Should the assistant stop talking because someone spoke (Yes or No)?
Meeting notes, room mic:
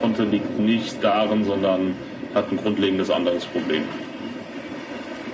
No